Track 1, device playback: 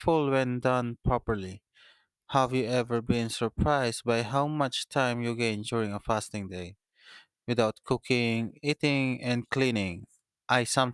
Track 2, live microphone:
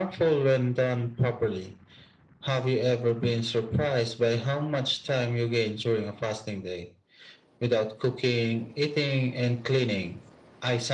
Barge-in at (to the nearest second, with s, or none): none